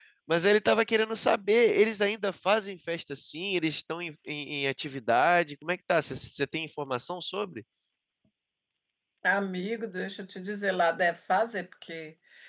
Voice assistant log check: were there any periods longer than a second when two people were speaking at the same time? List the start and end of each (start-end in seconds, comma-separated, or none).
none